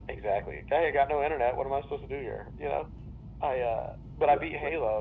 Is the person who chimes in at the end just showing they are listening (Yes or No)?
Yes